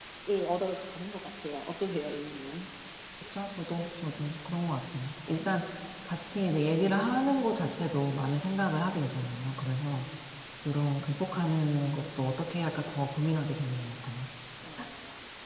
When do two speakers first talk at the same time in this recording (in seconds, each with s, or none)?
none